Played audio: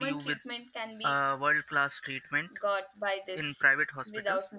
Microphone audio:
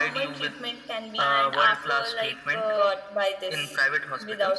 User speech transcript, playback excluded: and after like uh,

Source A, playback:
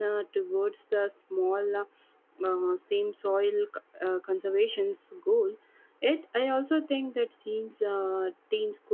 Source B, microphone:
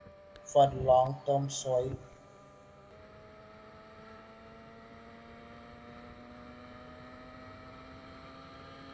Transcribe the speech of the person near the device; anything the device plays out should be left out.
for long-term soil

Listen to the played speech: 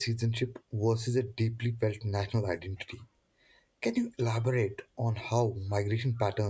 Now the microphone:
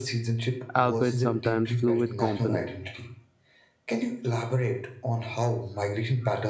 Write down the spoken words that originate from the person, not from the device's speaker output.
albeit sometimes fluid, component.

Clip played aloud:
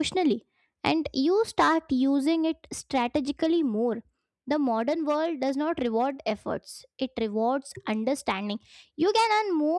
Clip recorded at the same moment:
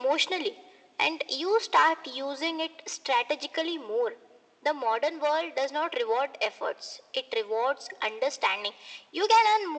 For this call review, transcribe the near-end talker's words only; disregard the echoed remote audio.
none

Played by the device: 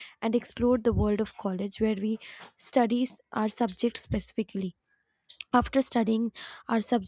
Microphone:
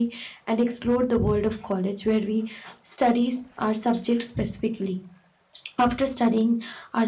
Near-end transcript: none

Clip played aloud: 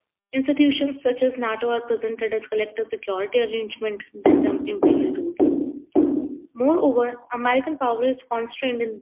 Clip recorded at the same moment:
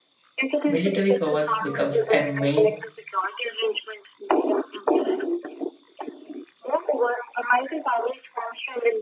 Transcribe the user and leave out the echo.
Military powers becomes a main

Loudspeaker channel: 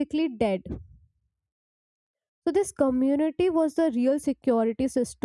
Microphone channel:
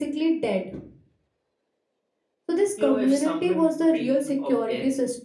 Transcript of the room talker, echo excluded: You know, if someone dreamed of death,

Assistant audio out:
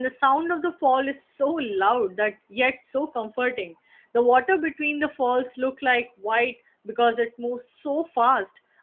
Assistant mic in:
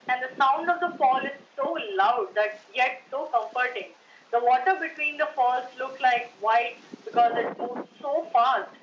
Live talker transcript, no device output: none

